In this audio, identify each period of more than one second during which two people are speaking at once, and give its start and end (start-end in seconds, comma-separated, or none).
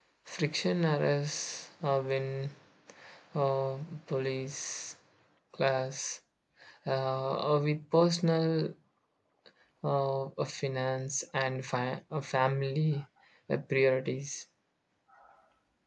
none